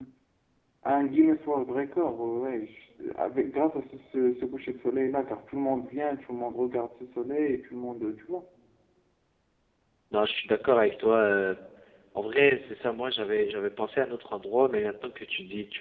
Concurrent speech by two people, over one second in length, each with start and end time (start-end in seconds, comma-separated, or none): none